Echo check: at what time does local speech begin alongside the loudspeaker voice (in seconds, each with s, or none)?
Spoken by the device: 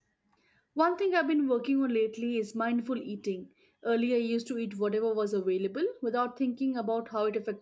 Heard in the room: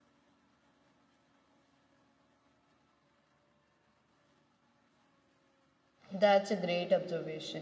6.1 s